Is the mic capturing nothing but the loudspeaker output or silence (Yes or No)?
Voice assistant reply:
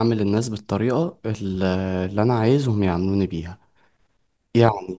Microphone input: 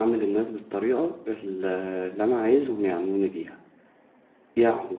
Yes